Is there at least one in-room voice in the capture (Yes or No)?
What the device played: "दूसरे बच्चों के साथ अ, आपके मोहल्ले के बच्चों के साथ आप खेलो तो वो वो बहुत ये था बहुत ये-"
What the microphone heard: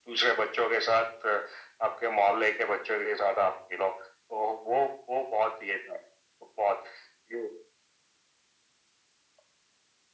No